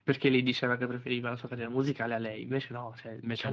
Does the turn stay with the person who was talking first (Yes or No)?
Yes